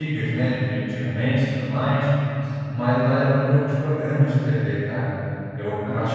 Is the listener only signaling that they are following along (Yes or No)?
Yes